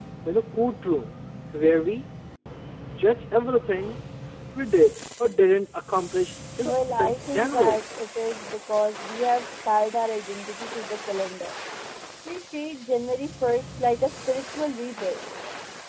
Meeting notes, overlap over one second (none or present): present